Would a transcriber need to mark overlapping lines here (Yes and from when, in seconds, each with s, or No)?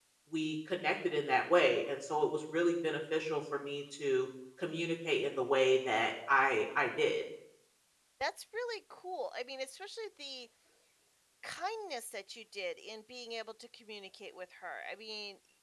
No